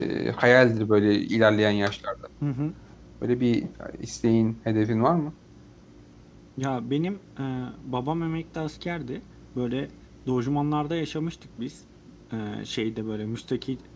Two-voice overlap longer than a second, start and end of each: none

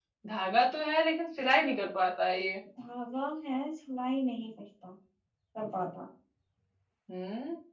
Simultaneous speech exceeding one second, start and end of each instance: none

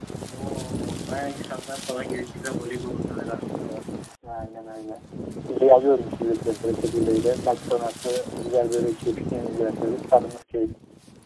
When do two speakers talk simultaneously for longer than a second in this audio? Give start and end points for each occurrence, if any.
none

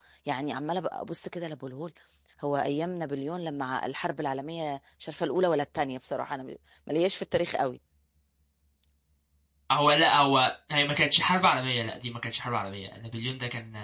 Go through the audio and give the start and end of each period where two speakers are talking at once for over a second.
none

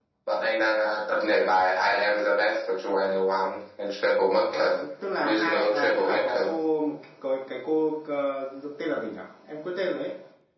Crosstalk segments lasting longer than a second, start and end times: 5.2-6.5

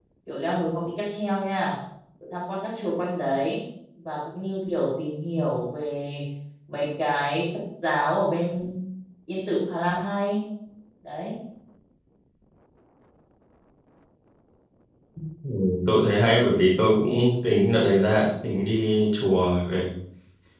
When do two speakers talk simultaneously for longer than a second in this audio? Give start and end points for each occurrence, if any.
none

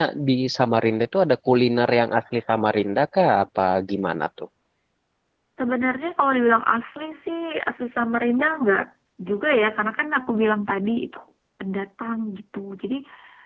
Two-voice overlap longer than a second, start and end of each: none

